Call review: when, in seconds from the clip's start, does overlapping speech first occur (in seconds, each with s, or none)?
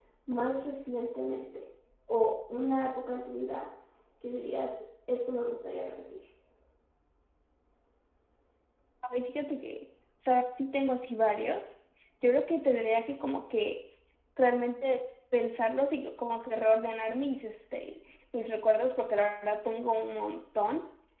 none